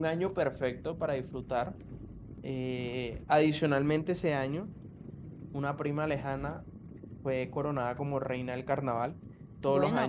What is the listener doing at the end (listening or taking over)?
listening